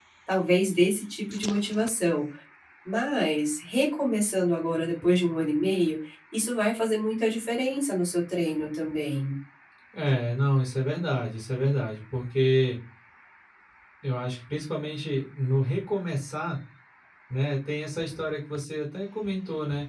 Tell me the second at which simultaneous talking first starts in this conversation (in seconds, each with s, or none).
none